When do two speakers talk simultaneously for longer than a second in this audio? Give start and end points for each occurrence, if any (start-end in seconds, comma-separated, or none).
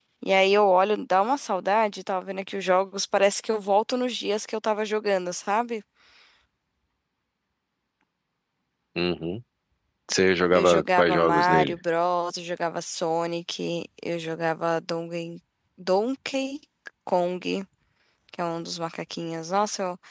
10.5-11.8